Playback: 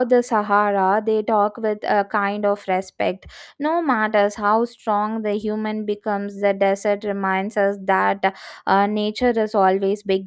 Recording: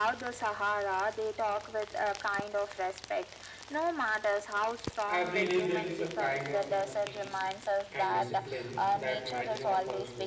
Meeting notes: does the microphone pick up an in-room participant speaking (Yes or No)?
Yes